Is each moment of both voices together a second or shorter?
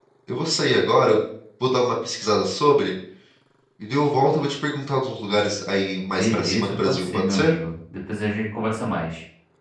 No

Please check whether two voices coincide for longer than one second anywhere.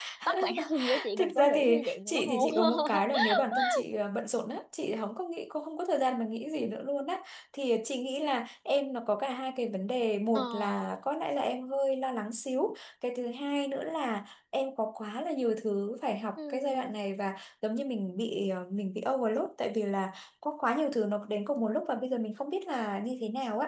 Yes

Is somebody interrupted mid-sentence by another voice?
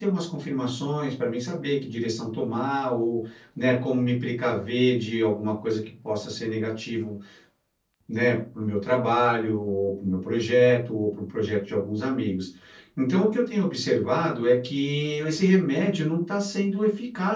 No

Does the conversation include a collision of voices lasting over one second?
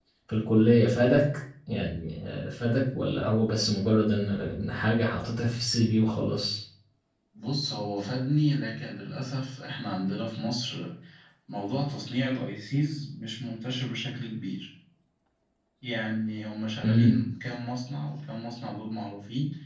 No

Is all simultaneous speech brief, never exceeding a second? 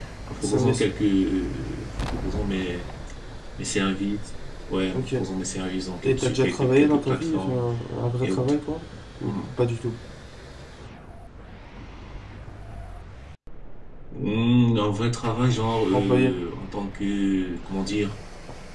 No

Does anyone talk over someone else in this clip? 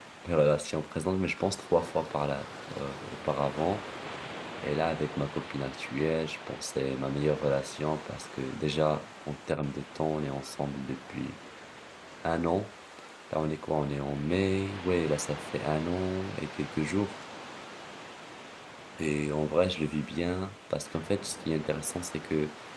No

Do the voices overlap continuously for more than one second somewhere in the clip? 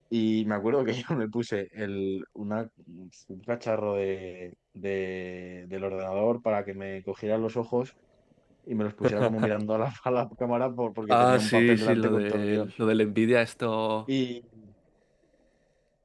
Yes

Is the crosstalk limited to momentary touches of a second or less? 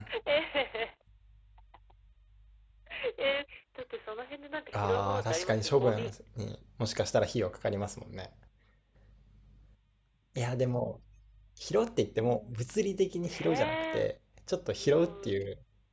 No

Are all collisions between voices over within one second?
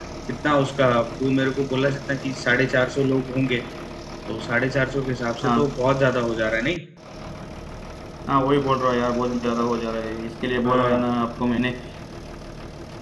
Yes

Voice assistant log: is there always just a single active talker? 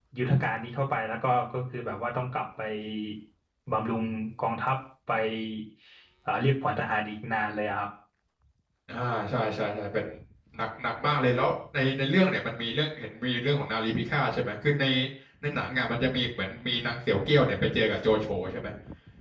Yes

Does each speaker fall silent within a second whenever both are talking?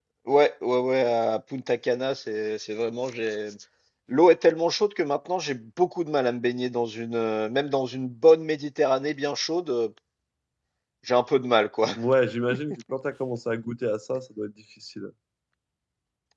Yes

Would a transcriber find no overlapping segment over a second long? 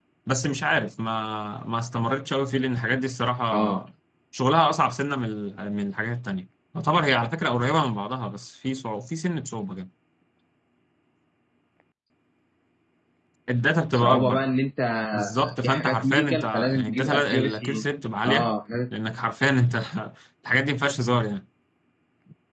No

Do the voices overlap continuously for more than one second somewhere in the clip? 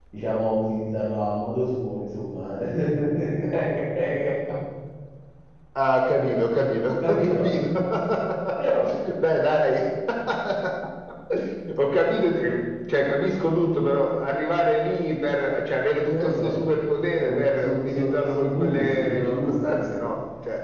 Yes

